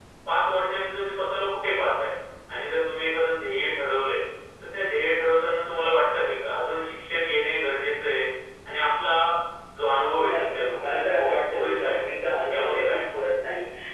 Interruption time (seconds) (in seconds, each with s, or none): 10.3 s